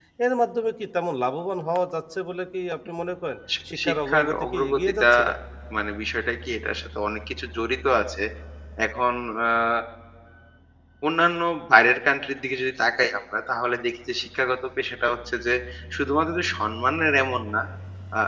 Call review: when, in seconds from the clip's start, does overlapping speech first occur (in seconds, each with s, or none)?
3.5 s